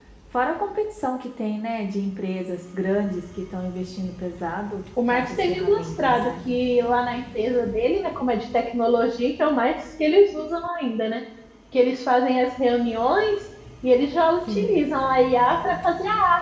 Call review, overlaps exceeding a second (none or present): present